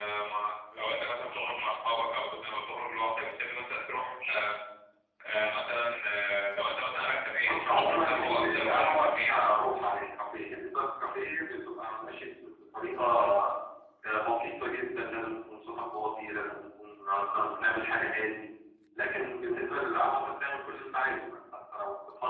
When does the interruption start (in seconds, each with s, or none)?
7.5 s